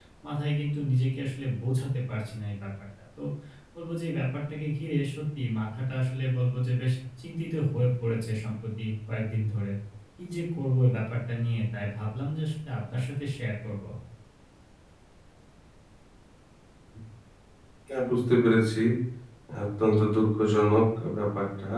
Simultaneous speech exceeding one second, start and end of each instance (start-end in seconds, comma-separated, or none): none